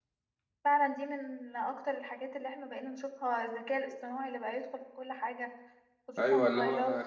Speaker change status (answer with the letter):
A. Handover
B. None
A